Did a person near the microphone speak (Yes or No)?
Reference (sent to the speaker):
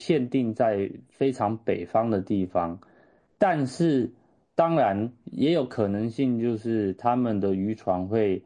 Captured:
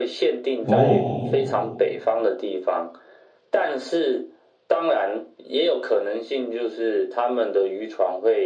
Yes